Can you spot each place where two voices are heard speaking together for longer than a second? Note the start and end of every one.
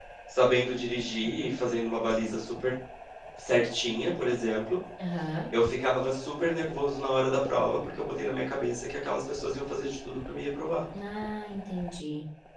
none

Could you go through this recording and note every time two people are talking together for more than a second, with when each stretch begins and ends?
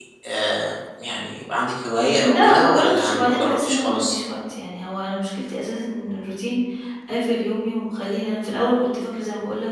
2.1-4.2

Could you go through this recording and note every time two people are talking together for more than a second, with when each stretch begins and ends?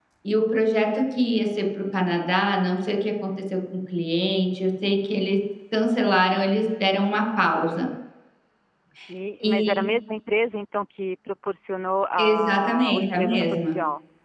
12.2-13.8

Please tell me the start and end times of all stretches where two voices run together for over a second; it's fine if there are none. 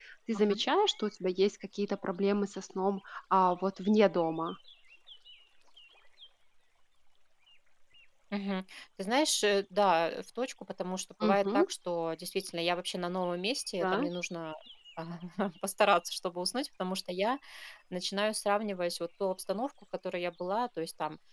none

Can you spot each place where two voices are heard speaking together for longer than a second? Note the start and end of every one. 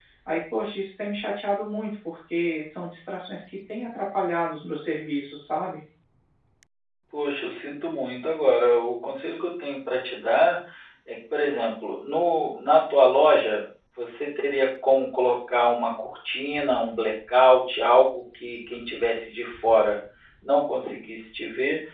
none

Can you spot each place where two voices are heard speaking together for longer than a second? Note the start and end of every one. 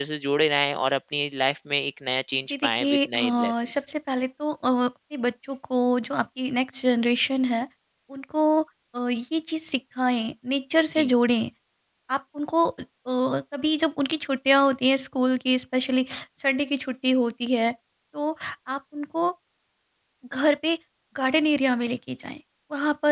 2.5-3.8

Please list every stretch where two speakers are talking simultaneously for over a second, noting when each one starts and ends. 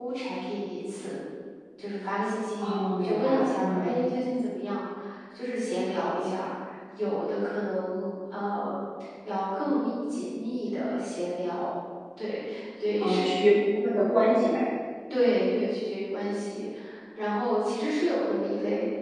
2.6-4.0

